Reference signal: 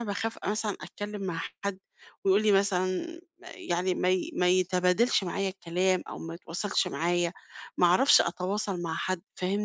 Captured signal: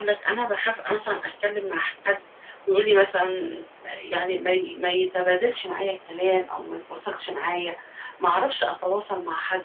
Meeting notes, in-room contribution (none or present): none